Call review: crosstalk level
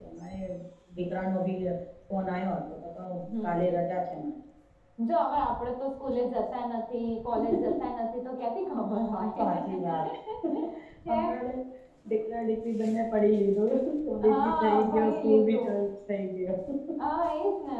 present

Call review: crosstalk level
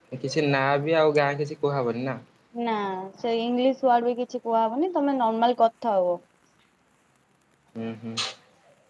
none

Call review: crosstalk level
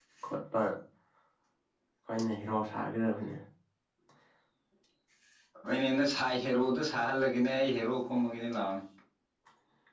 none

